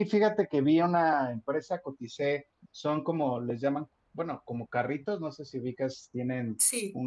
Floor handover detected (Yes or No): No